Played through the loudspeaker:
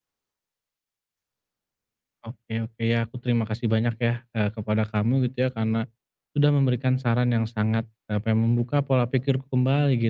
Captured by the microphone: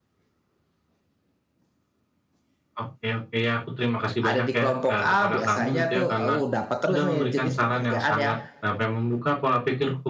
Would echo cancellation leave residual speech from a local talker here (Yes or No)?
Yes